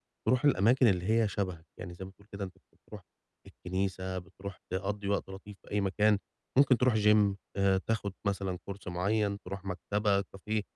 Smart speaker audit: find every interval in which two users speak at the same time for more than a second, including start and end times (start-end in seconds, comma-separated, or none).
none